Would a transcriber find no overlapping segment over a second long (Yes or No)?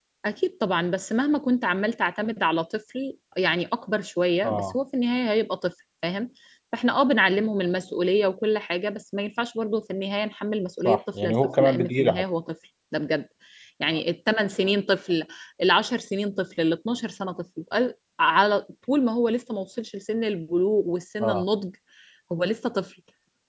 No